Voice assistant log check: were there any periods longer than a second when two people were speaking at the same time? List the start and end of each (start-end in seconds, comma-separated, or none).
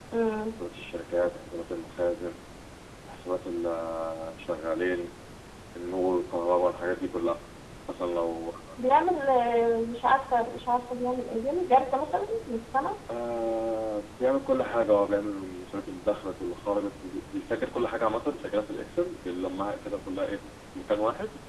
none